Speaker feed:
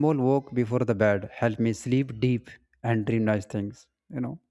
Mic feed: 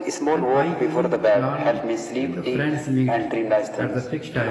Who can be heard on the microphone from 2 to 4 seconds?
both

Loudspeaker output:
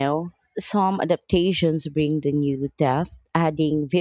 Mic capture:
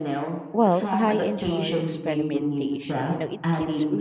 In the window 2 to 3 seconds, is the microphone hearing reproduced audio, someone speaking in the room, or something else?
both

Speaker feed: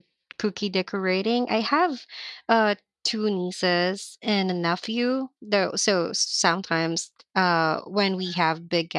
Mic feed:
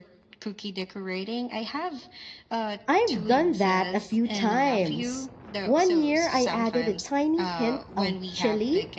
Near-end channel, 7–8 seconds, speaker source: both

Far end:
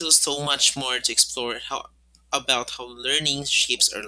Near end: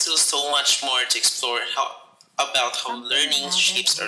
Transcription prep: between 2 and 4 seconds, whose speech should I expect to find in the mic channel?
both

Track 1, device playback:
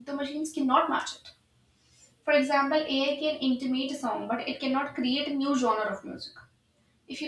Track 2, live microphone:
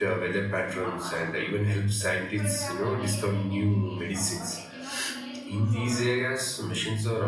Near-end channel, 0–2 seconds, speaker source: both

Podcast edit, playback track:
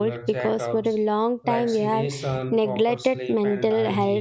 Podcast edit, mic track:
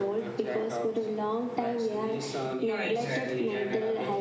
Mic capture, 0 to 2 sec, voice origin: echo only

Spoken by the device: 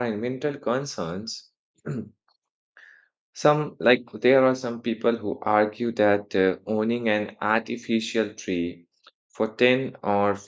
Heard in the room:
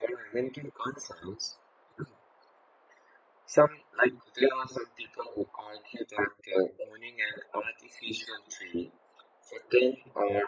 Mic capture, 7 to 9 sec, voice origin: echo only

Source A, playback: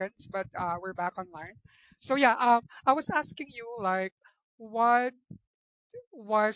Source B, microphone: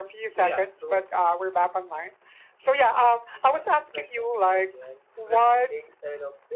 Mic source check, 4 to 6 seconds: both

